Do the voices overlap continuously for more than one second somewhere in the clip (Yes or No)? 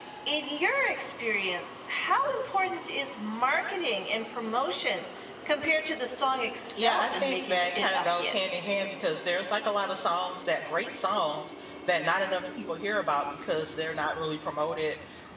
Yes